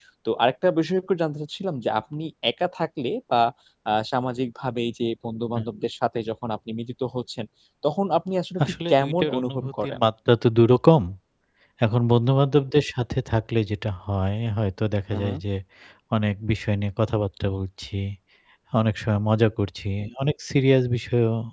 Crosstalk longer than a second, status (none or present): present